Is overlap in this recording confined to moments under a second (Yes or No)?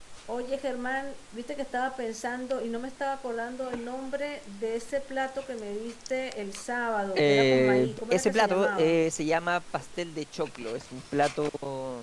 No